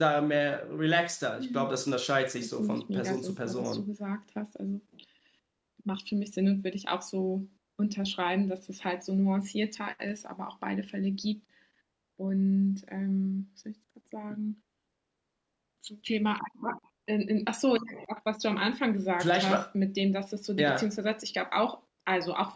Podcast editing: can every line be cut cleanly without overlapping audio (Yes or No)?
No